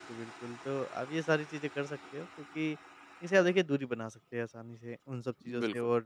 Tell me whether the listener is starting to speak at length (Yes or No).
No